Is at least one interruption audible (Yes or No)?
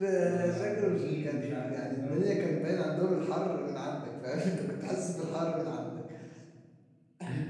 Yes